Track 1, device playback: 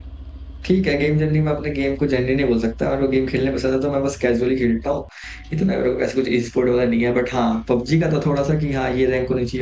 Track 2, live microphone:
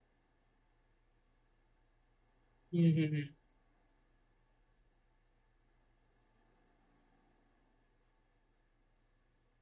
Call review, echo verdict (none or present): none